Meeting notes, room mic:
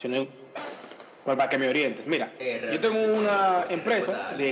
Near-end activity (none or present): present